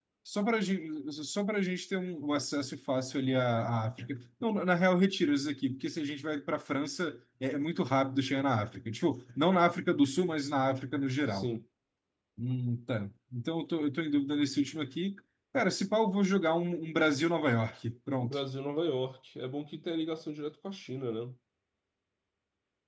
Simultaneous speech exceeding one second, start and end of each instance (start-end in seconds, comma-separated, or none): none